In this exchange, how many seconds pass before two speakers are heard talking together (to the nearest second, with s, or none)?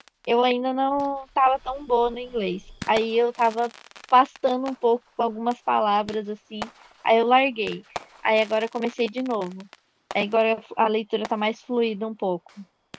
none